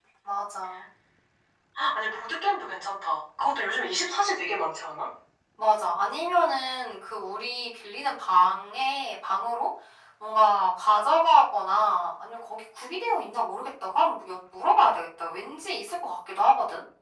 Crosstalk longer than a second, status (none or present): none